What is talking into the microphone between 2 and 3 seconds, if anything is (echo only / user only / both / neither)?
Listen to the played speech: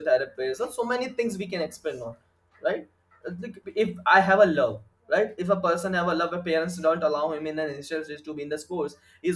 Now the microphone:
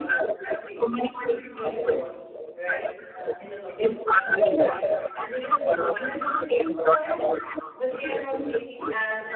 both